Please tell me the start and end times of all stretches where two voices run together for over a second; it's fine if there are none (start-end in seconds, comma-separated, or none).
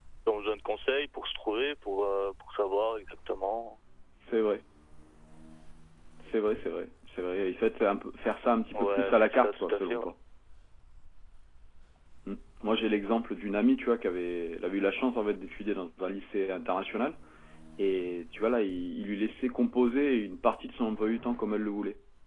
8.7-10.1